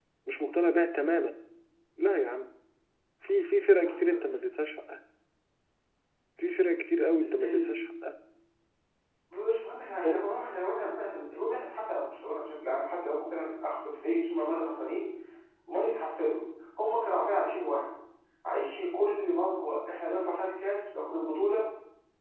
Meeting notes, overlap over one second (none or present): none